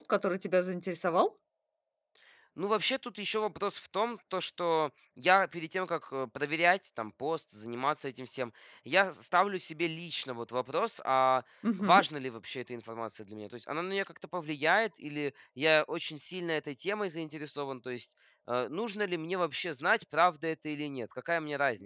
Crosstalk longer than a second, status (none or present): none